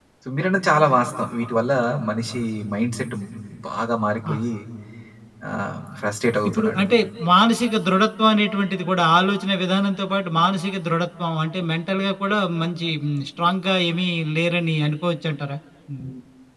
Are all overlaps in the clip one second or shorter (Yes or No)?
Yes